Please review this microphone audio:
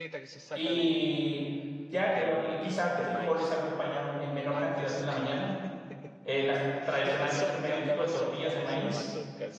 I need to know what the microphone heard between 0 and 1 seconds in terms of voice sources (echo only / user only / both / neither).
both